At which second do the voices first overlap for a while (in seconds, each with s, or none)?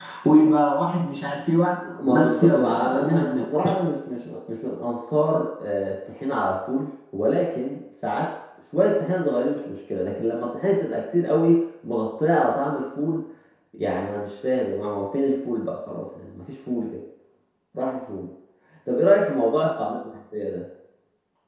2.0 s